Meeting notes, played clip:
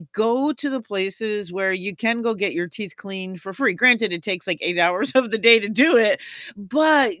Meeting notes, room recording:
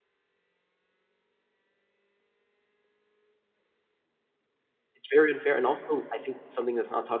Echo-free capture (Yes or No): Yes